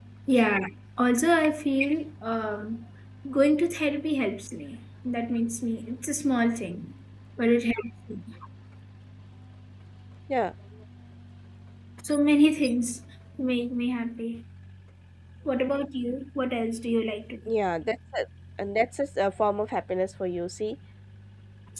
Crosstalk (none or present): none